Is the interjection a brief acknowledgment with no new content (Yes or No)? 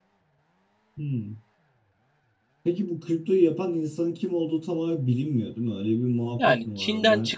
No